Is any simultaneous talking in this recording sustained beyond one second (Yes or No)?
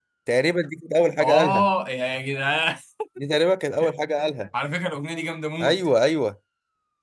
No